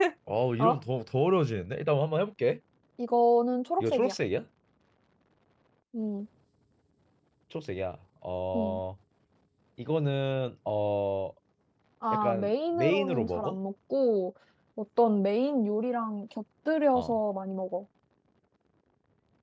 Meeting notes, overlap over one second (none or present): present